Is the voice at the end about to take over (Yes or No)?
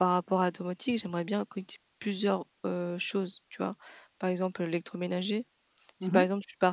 No